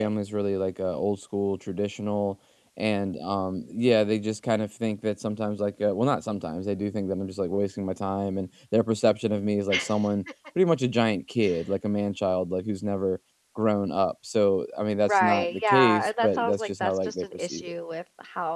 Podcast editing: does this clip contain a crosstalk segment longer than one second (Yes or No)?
Yes